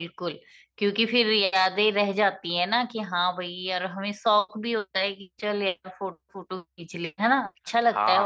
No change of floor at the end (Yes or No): No